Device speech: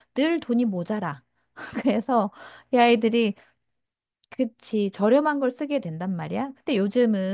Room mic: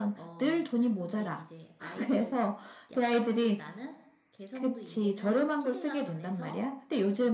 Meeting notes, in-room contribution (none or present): present